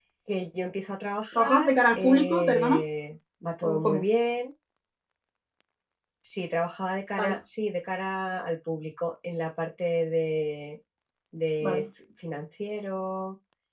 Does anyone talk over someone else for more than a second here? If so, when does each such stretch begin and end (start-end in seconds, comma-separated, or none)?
1.3-2.8